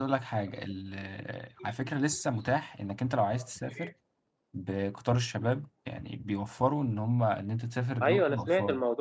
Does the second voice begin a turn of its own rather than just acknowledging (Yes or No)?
Yes